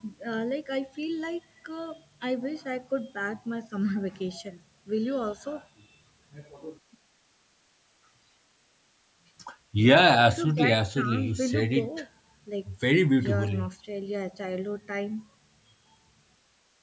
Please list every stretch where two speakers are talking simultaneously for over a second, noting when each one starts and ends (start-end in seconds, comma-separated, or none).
10.3-11.9